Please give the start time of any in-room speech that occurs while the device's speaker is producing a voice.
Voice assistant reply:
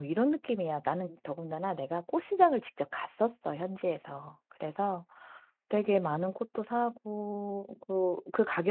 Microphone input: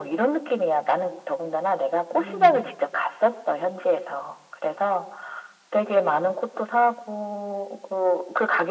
2.2 s

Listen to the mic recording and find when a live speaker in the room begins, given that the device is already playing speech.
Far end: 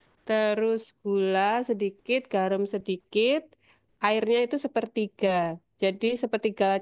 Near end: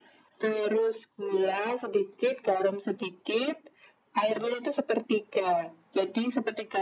none

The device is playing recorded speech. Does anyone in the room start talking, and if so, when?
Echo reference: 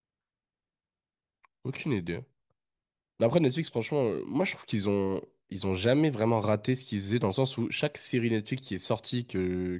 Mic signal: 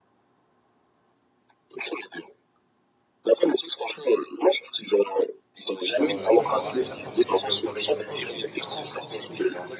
5.9 s

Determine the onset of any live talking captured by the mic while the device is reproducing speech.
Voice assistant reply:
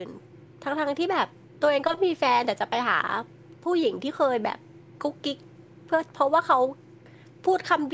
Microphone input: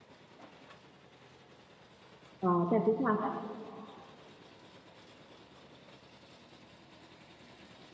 2.4 s

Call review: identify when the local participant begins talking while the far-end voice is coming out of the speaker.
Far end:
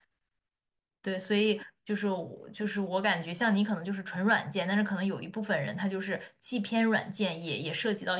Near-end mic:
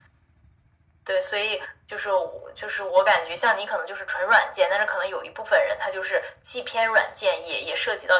none

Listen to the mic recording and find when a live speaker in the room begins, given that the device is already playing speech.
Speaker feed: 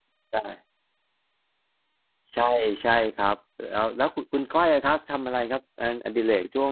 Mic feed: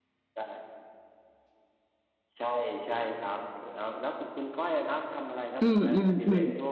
5.6 s

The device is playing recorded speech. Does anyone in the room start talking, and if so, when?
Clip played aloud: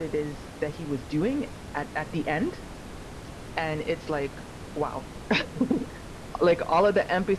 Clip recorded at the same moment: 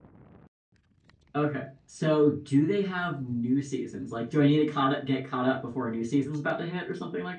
1.4 s

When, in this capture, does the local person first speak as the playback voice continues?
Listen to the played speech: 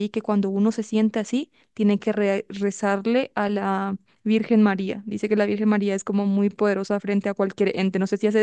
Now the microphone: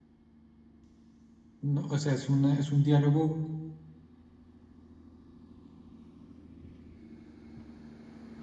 1.6 s

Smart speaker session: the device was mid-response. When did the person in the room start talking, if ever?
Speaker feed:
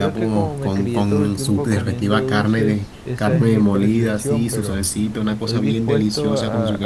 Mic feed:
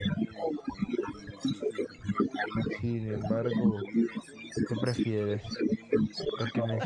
2.7 s

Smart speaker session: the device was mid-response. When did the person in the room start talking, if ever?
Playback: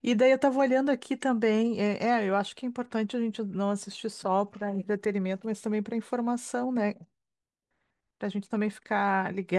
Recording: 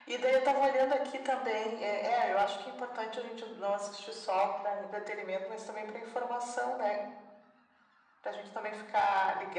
none

